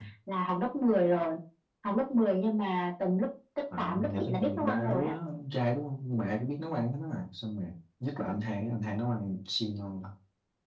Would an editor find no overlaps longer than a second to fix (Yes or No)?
No